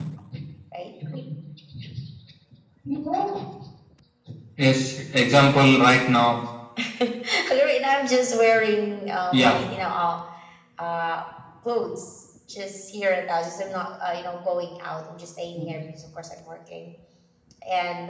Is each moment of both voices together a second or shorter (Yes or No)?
Yes